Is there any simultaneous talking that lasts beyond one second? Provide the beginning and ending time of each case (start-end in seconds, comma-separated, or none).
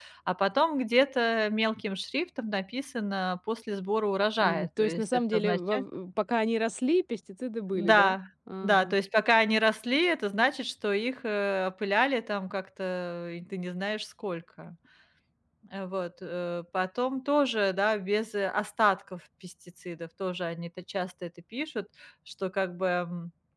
4.4-5.8